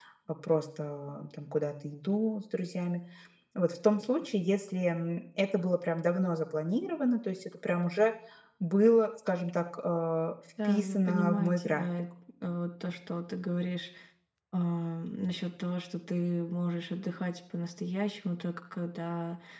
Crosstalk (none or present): present